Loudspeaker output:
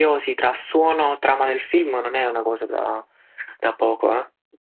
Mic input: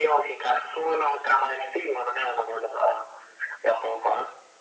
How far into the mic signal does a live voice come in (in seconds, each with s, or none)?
none